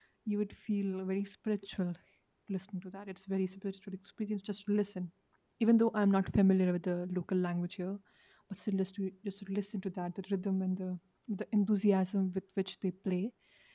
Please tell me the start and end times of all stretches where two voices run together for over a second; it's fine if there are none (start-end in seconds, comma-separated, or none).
none